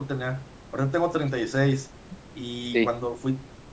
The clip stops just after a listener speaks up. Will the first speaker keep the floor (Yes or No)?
Yes